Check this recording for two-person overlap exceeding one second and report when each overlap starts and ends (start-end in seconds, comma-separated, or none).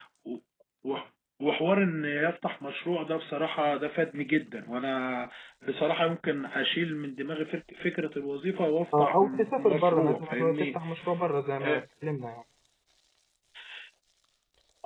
9.0-10.8